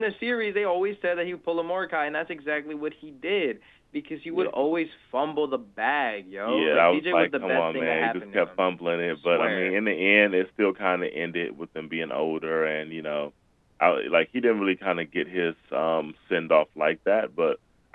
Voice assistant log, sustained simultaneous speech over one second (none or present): present